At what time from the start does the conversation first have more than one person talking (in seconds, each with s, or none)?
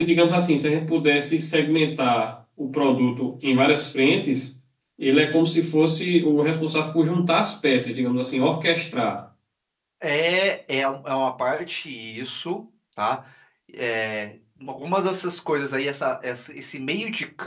none